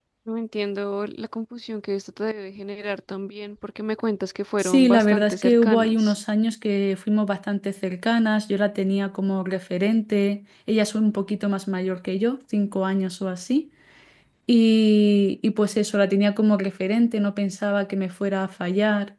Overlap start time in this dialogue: 4.6 s

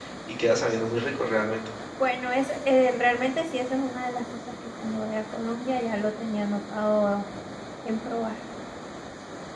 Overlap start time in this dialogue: none

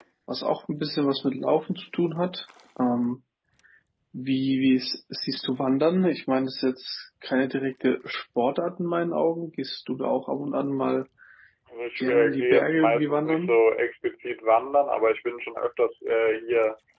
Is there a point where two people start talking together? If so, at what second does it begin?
12.0 s

